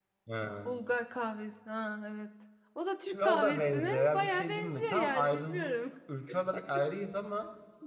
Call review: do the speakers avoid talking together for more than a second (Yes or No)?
No